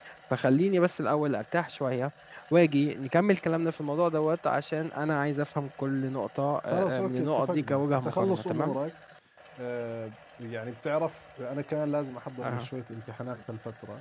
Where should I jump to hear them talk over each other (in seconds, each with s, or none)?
7.0 s